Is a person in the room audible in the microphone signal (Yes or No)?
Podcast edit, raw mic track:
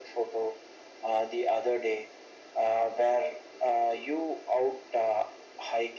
No